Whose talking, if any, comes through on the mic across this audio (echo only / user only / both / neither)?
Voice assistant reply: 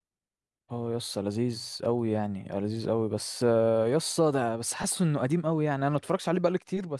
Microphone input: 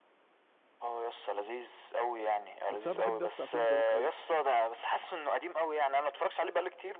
both